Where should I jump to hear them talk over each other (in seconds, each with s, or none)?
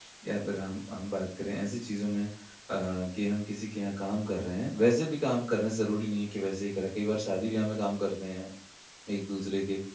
none